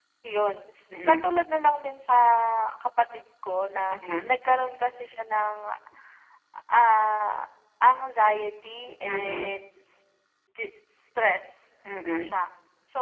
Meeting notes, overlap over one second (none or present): none